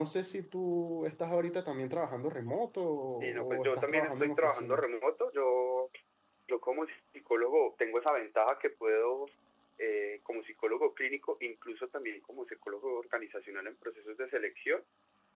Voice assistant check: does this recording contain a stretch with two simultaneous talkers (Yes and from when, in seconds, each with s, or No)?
Yes, from 3.2 s